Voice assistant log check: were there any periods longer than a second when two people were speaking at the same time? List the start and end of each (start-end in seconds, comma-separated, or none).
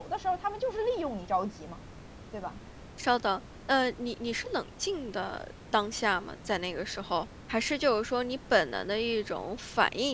none